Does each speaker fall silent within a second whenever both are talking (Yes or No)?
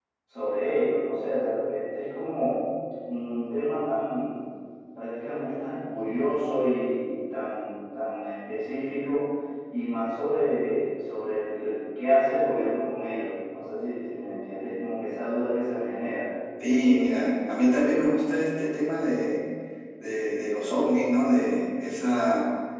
Yes